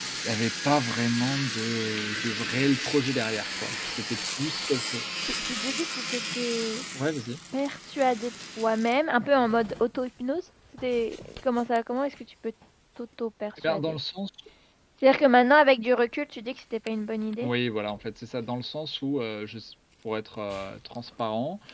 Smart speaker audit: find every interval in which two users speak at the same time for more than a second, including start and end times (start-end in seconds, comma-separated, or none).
none